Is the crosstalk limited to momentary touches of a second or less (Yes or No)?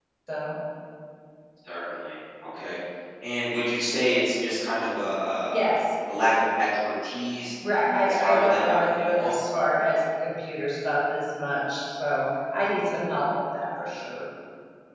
No